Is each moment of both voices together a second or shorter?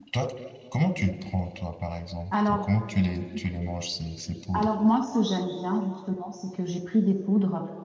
Yes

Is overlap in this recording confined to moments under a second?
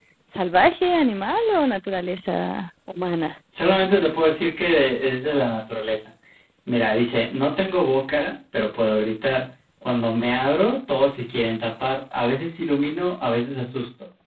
Yes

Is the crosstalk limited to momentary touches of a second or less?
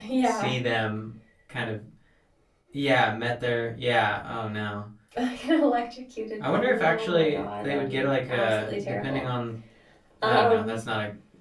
No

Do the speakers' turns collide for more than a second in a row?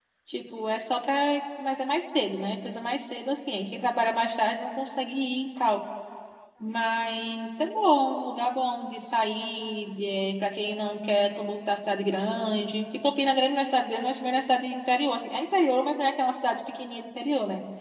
No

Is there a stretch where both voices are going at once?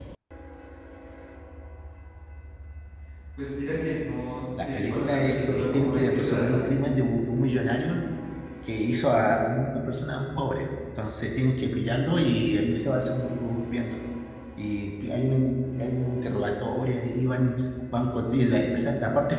Yes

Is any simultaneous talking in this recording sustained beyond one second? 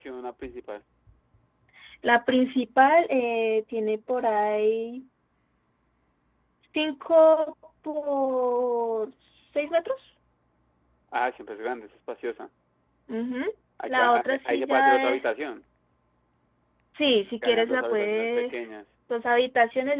Yes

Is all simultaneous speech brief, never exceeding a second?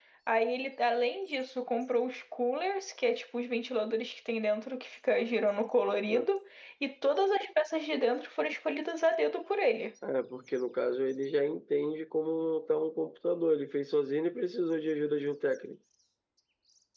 Yes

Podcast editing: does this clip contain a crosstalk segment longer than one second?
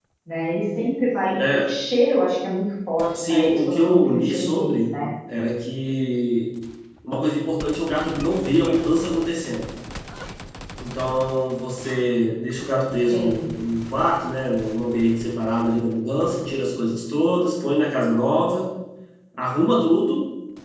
Yes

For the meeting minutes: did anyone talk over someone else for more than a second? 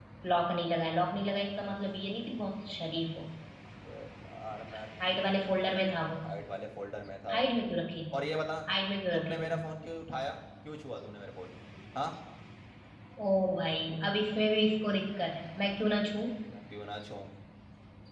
No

